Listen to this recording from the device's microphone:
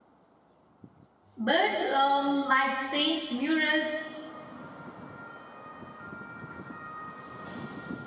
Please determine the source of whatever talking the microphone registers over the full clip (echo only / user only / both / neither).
user only